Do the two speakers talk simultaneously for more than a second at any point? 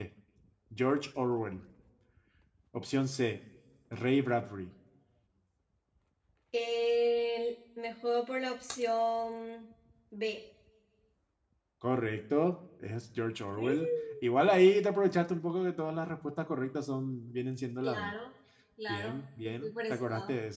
Yes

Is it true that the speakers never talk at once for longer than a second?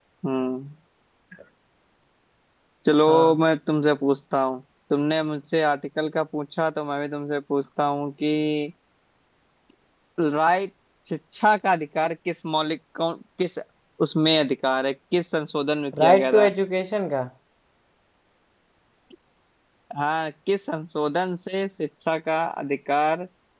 Yes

